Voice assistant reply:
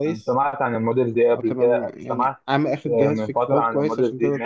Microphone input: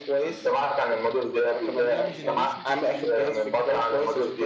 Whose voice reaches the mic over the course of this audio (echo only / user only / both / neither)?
both